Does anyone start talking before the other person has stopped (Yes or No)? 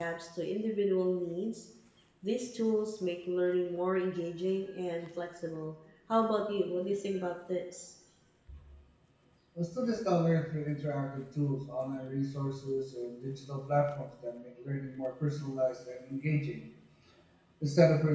No